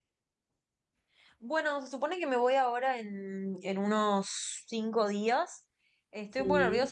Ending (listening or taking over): listening